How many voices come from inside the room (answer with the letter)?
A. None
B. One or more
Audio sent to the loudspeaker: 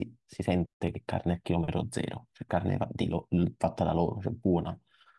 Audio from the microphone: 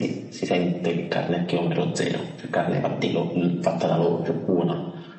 A